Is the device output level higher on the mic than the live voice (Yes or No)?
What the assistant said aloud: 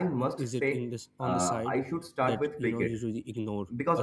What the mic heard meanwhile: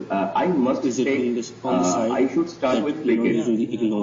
Yes